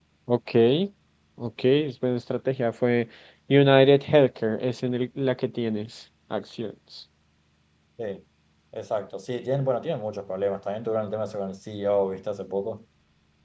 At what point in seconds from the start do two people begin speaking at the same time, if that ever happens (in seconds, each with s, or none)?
none